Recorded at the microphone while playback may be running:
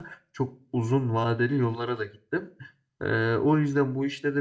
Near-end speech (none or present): present